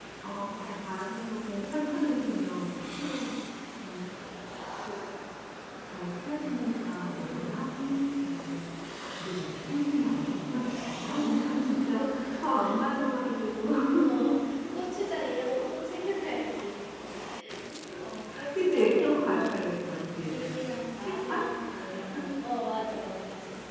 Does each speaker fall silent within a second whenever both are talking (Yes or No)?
No